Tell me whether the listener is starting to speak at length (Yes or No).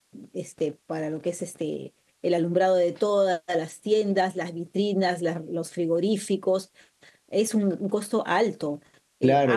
Yes